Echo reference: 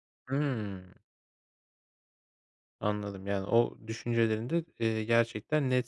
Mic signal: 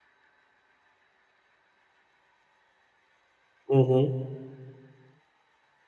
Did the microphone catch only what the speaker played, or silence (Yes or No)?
No